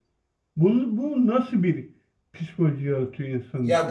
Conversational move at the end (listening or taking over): taking over